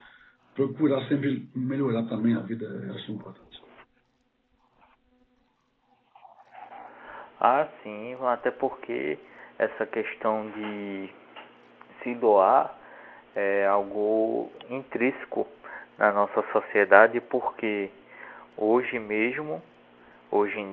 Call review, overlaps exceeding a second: none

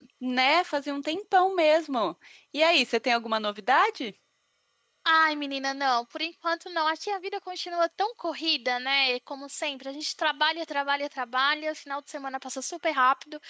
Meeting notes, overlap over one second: none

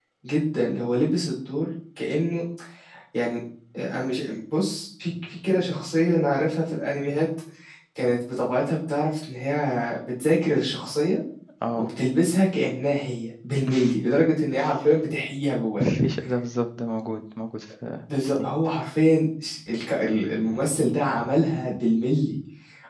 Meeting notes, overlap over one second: none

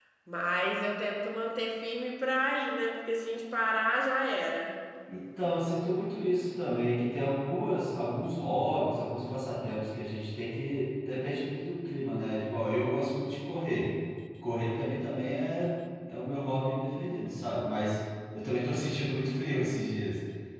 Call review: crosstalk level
none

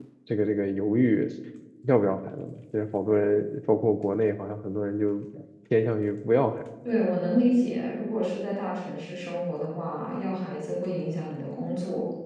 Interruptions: none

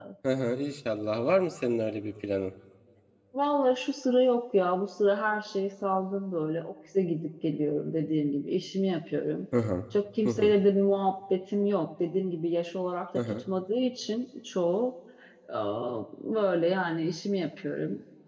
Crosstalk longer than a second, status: none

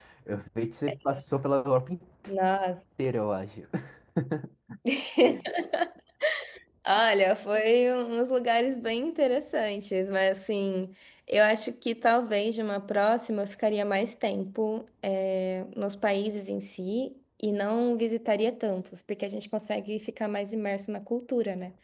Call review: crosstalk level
none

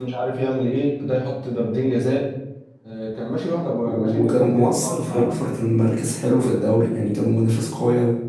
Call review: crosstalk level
present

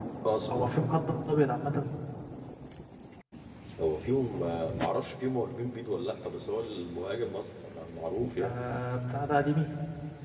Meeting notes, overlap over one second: none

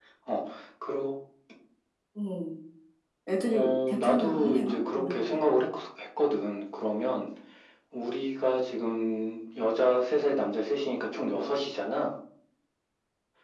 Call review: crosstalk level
present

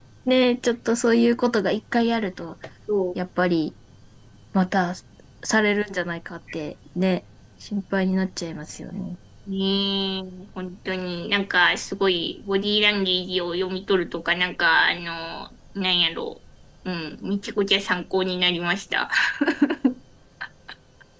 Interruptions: none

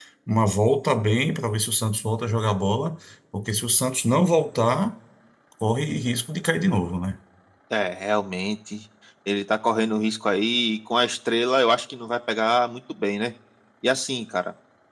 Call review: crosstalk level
none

